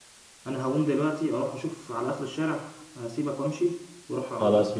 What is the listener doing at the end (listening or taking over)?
listening